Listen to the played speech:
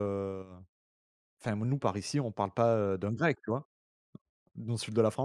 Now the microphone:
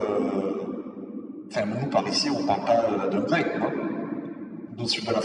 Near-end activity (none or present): none